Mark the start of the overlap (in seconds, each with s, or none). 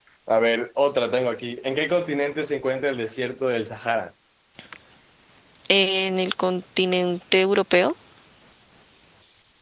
none